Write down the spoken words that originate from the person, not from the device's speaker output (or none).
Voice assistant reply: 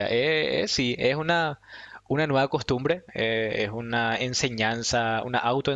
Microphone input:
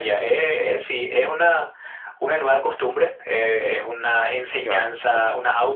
Claro, yo no,